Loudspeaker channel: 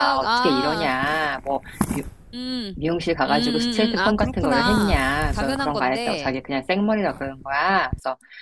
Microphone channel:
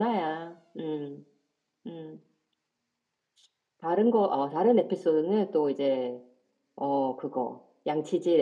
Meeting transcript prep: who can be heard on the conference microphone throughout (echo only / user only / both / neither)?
user only